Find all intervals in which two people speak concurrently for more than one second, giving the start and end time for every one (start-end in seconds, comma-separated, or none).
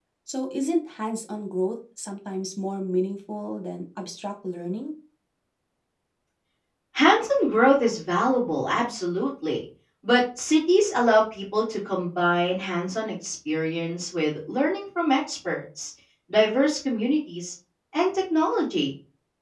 none